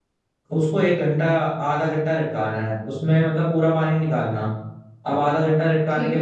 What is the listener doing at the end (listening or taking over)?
listening